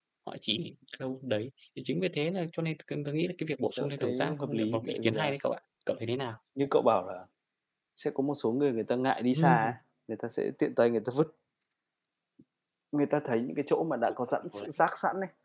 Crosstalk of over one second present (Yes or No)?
Yes